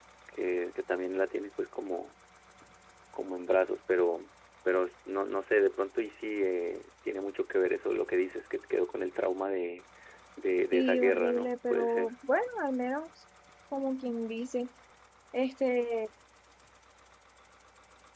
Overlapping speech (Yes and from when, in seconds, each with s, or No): Yes, from 10.7 s